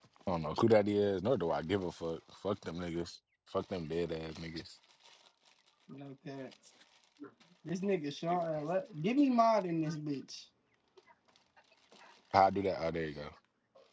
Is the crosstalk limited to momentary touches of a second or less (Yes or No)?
Yes